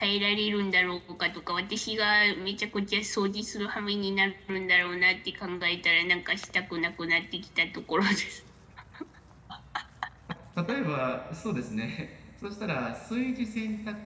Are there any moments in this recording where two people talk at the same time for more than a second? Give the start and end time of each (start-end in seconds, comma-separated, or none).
none